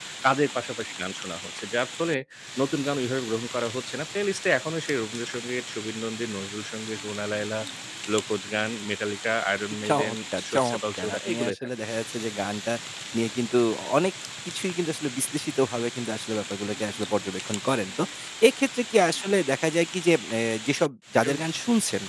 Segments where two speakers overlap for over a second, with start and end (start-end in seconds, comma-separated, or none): 9.9-11.7